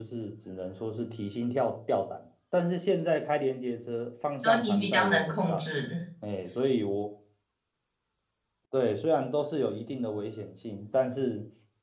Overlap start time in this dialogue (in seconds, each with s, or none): 4.4 s